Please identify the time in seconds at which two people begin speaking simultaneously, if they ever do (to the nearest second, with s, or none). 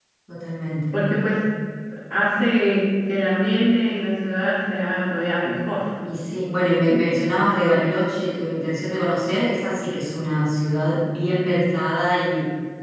none